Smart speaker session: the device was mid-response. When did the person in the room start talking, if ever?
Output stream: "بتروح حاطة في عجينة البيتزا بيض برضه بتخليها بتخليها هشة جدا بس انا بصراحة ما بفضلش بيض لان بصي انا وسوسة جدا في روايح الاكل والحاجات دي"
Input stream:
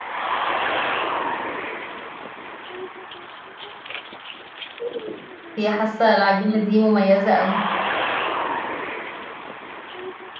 5.6 s

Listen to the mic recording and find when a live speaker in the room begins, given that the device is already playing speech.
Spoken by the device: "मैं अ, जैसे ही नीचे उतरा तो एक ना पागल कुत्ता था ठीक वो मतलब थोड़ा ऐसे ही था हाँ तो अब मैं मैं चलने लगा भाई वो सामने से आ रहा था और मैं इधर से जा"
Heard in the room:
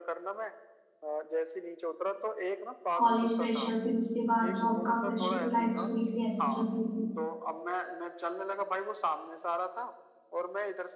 3.0 s

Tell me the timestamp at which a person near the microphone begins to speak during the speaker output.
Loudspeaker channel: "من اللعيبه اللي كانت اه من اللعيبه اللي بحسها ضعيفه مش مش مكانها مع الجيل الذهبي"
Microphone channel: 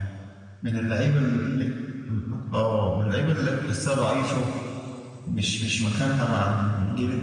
none

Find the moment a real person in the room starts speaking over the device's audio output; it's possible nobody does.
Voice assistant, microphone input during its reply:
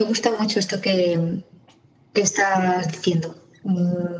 none

